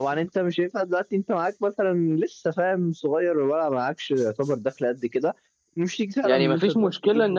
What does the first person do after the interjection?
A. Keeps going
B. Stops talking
B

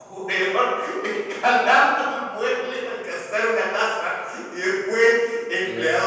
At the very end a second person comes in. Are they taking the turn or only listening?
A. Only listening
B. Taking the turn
A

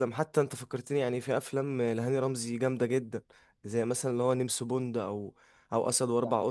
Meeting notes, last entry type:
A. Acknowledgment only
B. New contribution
A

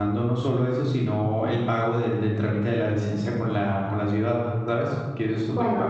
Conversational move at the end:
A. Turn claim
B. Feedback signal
A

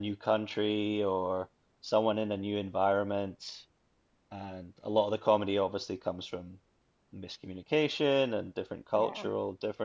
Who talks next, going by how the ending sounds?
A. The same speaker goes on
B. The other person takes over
A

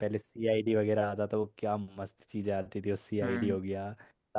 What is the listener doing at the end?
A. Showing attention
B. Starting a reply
A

